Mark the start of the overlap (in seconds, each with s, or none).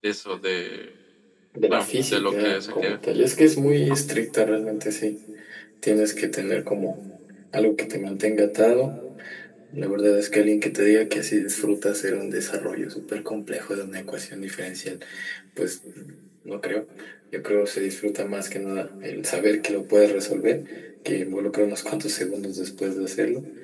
1.7 s